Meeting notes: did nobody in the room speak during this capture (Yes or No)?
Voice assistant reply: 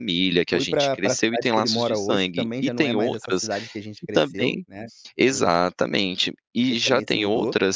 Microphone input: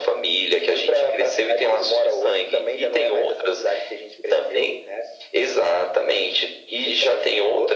Yes